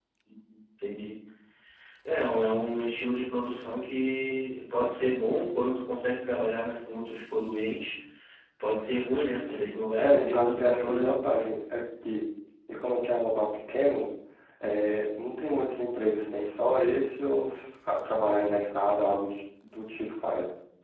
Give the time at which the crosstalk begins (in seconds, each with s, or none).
9.9 s